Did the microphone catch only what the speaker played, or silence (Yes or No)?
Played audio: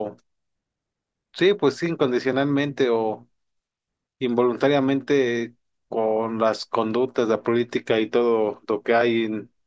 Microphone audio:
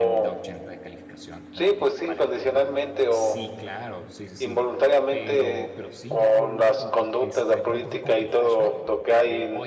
No